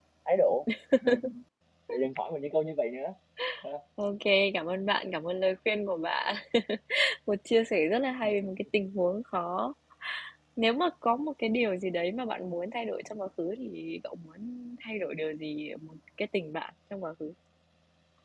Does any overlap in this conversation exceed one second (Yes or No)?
No